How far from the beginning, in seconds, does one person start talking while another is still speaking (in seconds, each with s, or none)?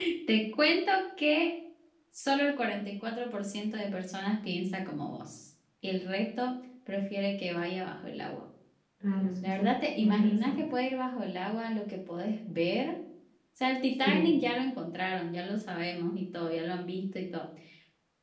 9.4 s